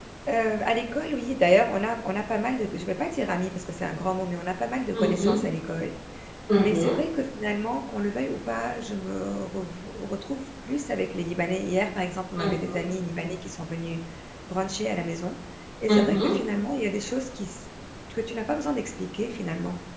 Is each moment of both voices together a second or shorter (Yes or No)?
Yes